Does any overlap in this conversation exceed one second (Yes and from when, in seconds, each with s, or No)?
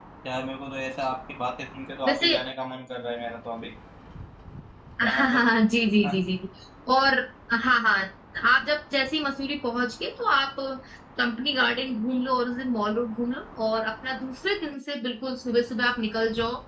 No